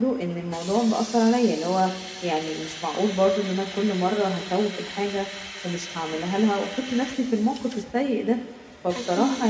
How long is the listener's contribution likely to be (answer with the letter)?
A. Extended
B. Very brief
B